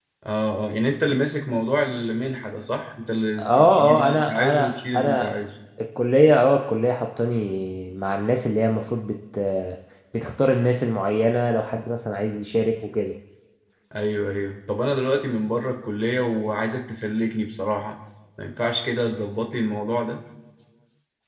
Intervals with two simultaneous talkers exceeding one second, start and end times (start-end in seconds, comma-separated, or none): 3.4-5.3